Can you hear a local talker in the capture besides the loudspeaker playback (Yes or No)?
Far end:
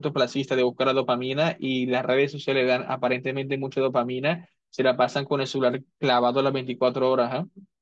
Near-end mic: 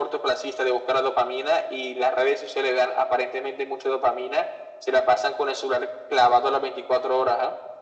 No